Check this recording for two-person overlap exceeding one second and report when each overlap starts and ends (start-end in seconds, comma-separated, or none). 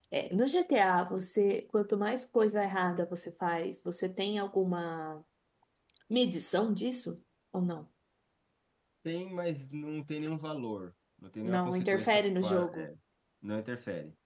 11.4-12.9